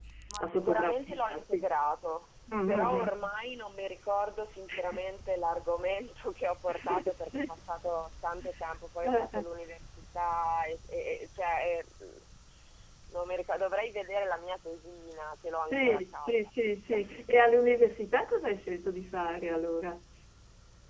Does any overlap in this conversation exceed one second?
Yes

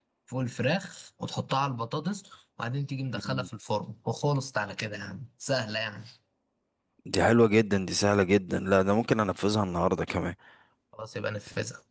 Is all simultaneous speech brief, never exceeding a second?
Yes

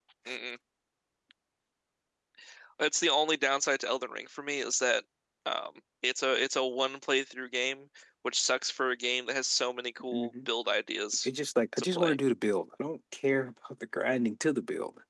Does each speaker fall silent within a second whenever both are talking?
Yes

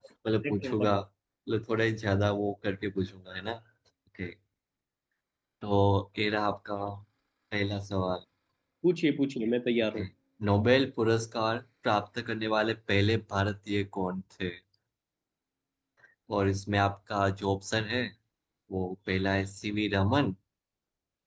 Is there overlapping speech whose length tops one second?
No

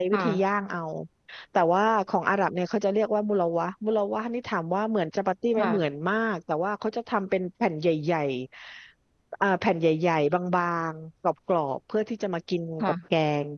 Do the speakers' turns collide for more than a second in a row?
No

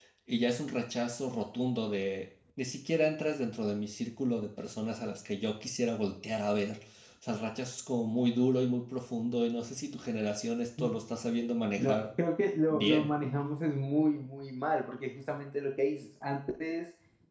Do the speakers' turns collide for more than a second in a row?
No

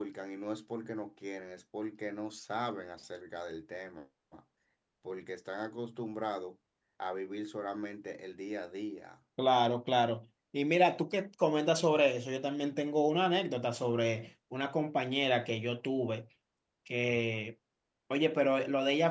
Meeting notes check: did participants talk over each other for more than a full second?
No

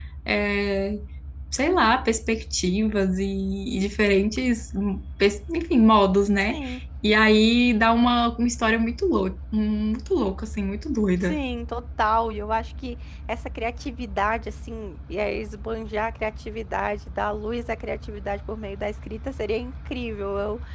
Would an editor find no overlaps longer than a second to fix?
Yes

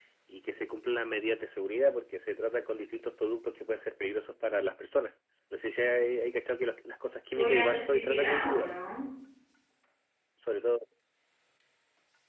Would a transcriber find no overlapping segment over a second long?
No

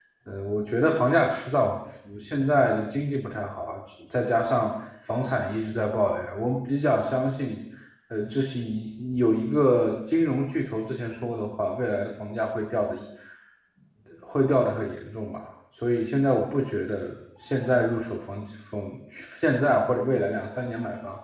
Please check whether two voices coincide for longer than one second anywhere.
No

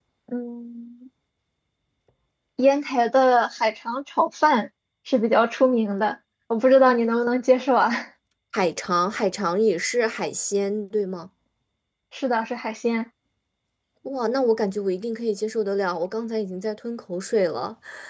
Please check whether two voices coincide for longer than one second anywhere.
No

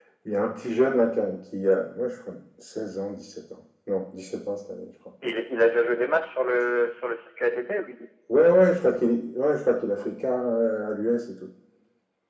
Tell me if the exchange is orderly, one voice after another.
Yes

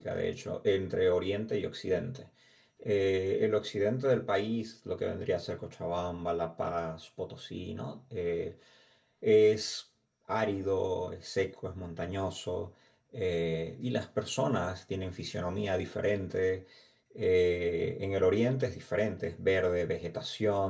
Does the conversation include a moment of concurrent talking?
No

